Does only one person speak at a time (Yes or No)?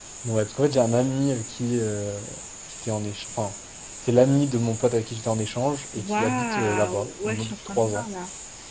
No